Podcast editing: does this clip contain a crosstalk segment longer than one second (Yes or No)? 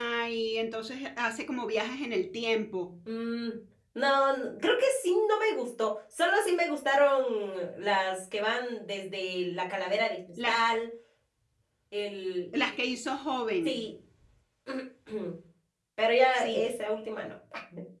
No